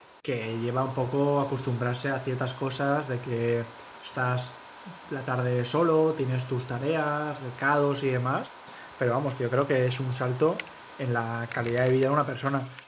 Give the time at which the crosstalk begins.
none

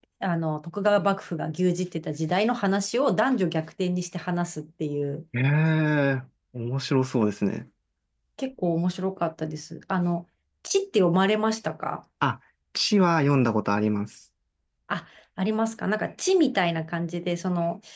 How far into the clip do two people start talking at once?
none

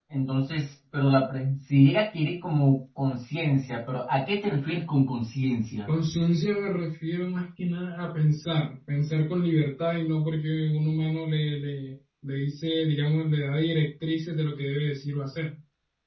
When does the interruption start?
none

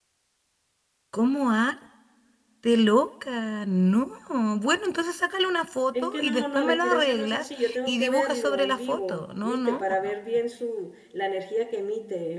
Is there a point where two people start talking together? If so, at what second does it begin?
5.9 s

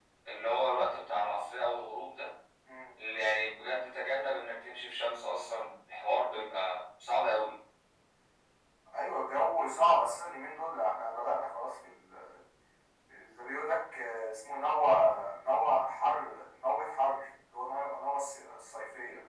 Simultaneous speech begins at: none

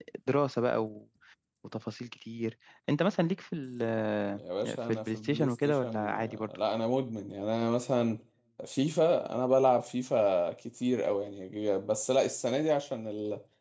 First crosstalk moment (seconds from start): 4.9 s

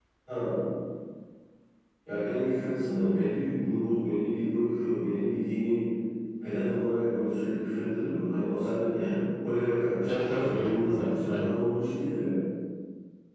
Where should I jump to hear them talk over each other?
10.1 s

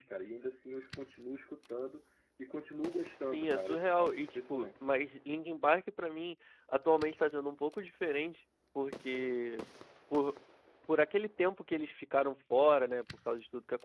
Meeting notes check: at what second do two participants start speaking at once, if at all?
3.3 s

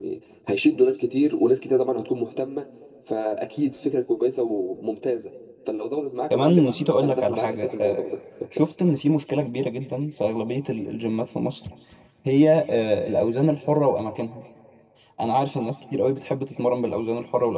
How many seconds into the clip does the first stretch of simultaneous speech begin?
6.3 s

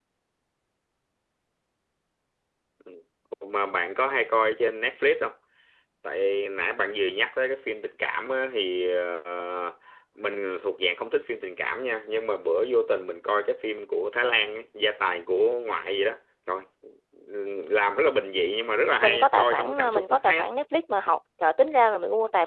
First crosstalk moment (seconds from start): 19.0 s

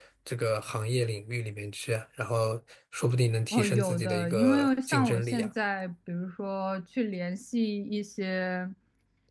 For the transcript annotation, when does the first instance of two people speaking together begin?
3.5 s

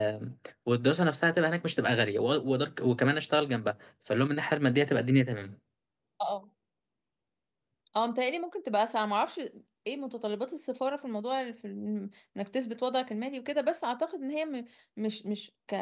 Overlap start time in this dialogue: none

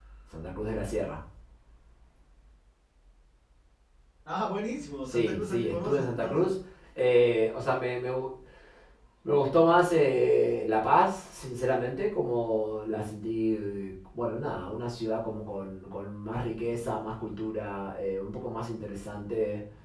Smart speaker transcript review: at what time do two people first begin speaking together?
5.0 s

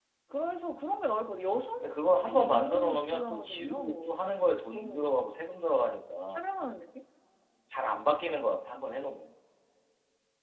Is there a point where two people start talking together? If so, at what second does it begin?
1.8 s

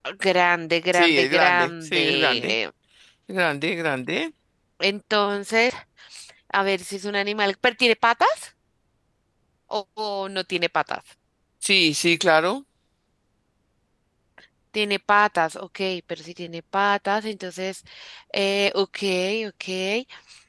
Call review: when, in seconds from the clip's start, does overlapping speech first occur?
0.9 s

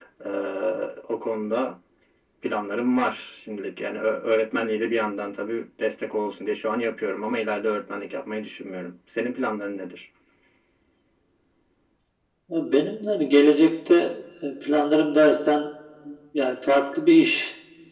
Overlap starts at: none

